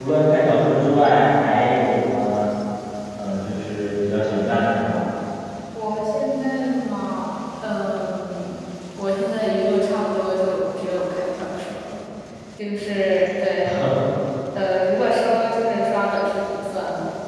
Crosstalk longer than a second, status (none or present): none